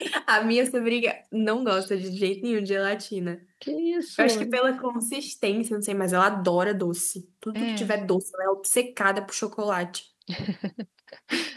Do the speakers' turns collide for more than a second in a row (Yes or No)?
No